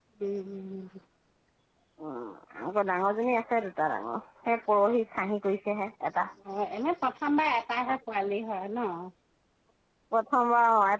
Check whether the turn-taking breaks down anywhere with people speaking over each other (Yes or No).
No